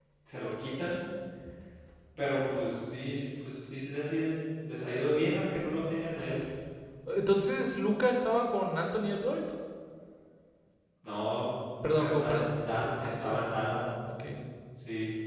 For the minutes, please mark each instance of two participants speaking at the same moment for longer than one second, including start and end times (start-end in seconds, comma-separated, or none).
12.0-13.8